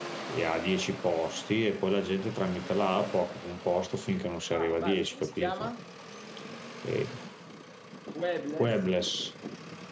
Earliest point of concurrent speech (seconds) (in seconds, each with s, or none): 4.5 s